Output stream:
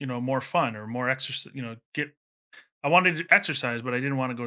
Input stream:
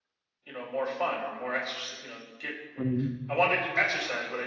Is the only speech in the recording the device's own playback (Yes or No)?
No